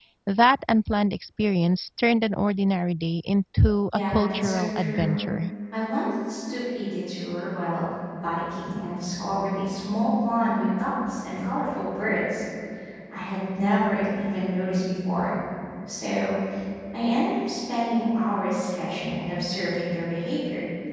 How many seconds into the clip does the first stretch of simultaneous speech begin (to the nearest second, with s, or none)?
4 s